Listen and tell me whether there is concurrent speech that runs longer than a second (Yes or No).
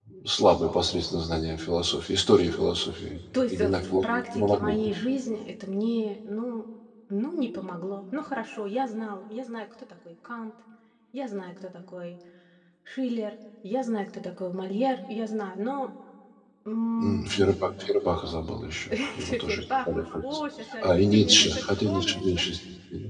Yes